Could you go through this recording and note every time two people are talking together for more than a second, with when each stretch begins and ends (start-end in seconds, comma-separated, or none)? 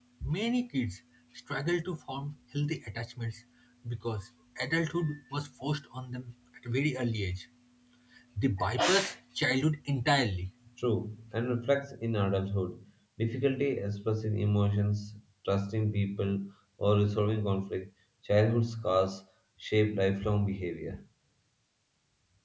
none